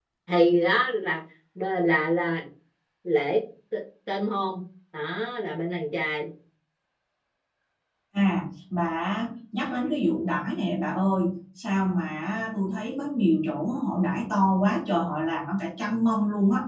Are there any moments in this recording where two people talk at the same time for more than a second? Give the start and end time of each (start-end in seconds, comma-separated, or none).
none